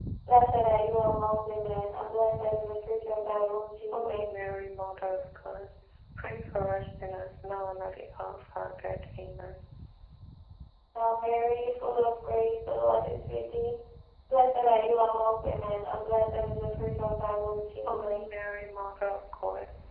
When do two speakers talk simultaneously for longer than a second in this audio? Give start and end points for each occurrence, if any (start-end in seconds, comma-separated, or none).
none